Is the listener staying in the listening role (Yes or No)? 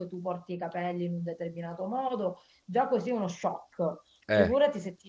Yes